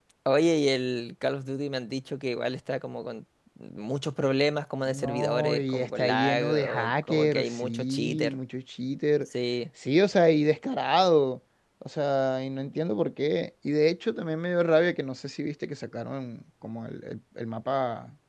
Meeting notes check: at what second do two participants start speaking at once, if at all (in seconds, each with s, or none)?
4.9 s